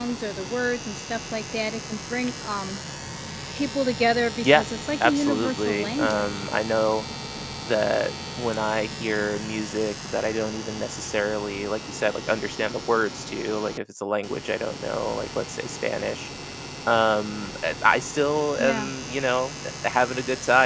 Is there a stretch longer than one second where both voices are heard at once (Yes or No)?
Yes